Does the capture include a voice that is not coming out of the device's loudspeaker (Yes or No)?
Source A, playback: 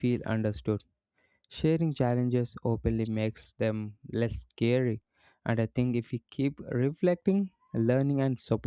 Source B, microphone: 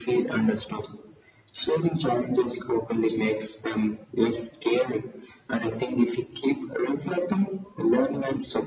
No